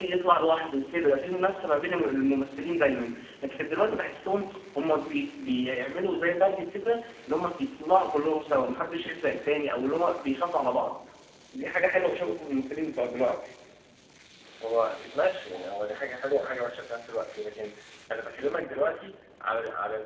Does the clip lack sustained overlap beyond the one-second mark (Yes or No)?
Yes